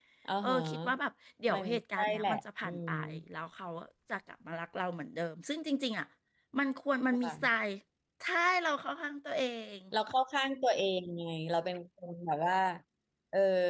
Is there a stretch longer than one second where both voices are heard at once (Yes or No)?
Yes